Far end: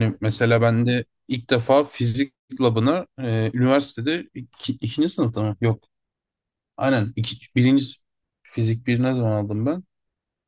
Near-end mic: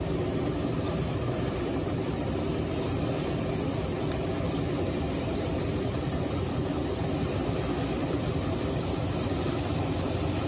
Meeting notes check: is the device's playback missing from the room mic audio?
Yes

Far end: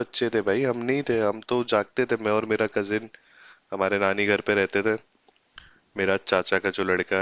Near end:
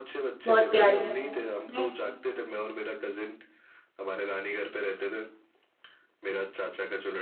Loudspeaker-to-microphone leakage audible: Yes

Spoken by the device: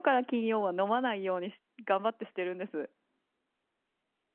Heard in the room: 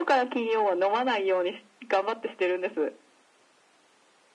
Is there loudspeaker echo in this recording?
Yes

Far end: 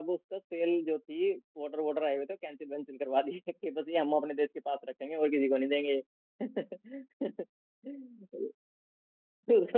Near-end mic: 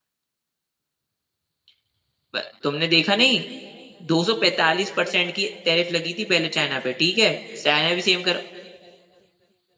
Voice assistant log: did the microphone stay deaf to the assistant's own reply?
Yes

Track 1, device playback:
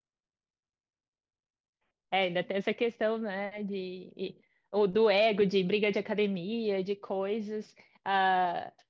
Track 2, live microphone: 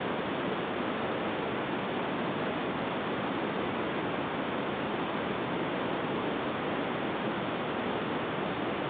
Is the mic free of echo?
Yes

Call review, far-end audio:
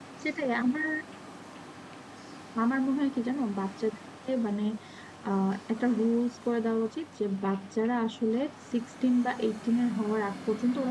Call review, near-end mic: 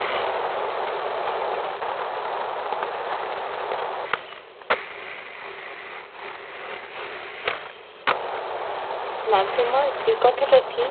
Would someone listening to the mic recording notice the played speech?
No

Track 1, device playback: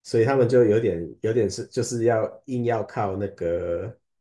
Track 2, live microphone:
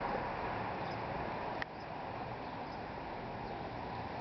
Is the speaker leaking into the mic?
No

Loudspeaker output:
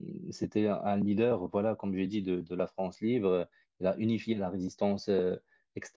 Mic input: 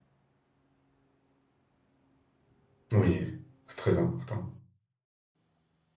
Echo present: No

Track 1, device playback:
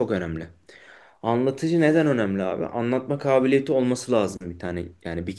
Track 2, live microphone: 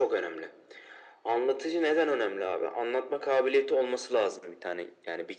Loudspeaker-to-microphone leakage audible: Yes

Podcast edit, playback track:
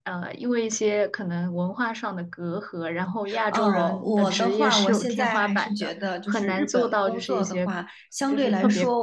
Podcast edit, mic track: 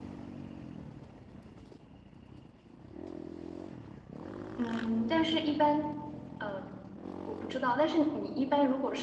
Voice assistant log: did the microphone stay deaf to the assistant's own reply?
Yes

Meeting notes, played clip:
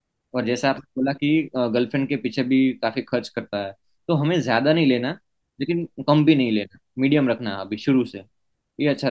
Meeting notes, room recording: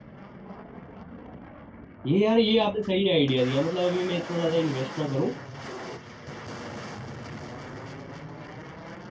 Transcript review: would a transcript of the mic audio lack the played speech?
Yes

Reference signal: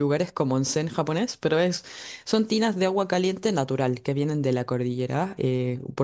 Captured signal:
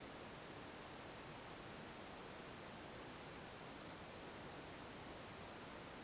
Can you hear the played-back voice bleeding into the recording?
No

